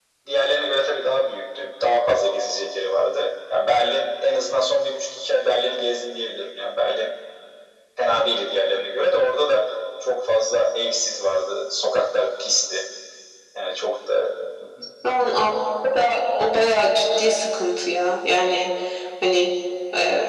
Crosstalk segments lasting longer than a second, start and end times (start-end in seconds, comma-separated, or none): none